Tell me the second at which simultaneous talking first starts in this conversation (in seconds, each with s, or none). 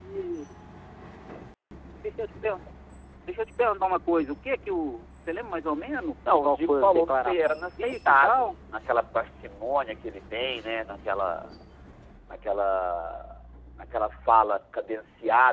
6.3 s